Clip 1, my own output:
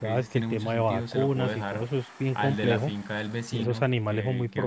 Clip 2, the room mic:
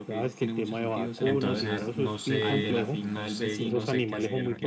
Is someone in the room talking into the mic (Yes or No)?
Yes